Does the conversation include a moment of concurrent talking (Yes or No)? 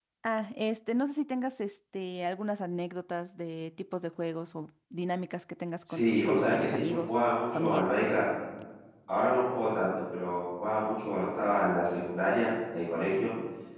Yes